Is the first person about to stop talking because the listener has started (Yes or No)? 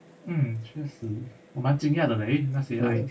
No